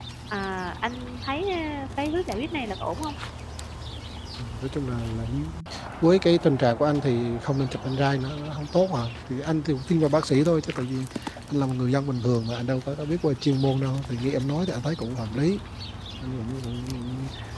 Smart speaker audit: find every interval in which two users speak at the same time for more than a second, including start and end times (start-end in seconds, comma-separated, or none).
none